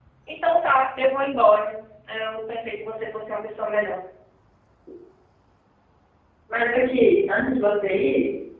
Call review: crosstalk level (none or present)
none